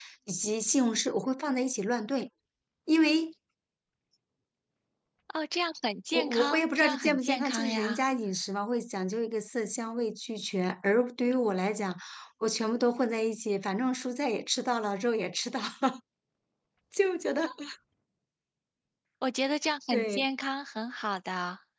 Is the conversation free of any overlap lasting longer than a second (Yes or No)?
No